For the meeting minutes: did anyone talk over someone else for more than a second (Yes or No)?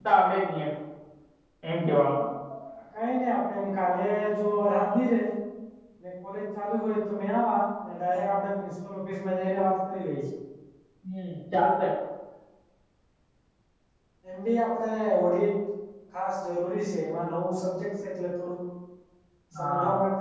No